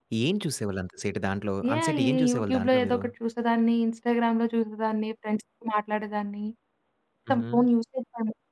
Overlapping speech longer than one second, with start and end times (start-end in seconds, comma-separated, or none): 1.8-3.0